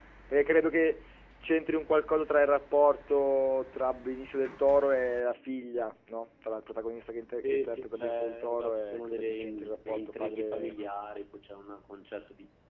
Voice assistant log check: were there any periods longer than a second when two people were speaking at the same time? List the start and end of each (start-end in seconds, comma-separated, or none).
7.5-10.8